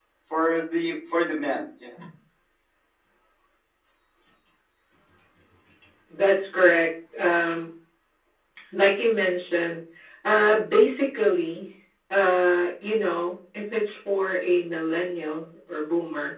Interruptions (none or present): none